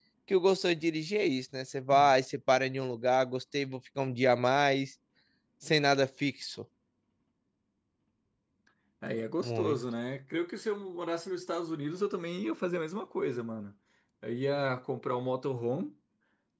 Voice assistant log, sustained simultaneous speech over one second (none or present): none